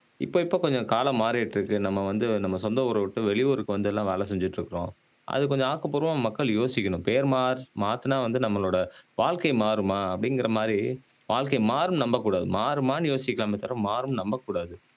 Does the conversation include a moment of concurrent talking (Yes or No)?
No